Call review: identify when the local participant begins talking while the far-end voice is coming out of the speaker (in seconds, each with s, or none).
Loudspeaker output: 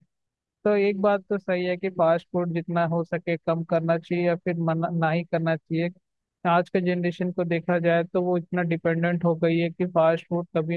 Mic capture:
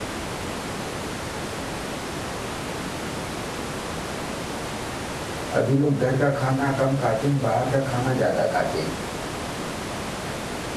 5.6 s